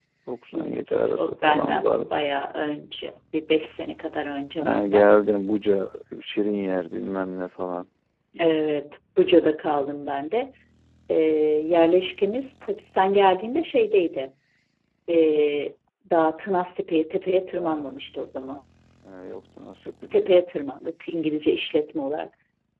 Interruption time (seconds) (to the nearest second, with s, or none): 1 s